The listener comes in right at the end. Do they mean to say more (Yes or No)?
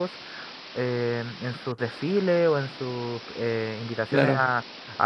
No